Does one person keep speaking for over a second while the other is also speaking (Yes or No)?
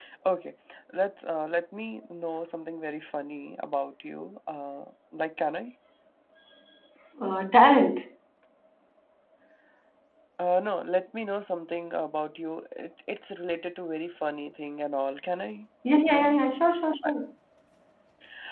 No